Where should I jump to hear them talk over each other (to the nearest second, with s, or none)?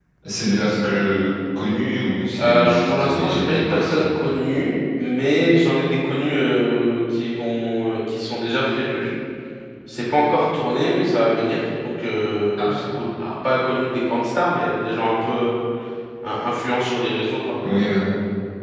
2 s